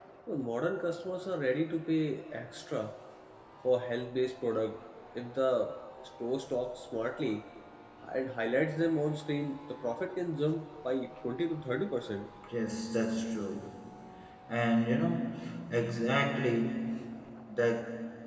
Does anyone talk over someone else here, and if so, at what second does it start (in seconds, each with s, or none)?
none